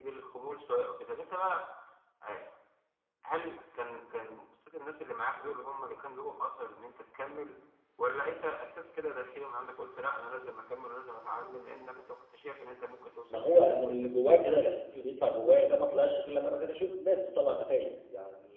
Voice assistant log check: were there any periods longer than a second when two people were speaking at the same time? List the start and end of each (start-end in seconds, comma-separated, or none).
13.3-14.8